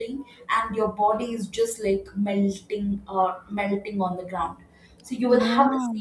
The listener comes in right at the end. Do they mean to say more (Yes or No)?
No